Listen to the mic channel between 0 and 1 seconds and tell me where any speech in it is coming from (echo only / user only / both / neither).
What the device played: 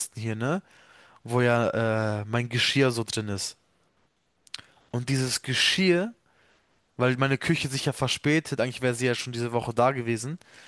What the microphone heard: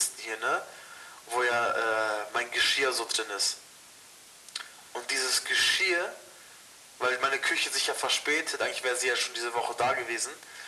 echo only